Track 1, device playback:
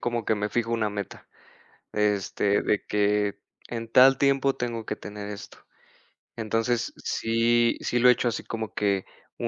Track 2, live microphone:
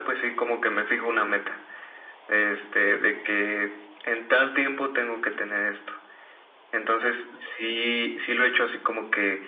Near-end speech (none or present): none